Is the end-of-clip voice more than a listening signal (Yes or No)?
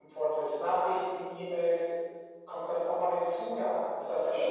Yes